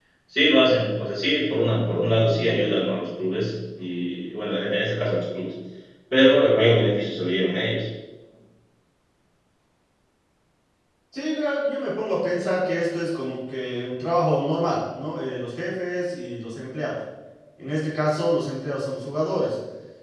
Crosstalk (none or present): none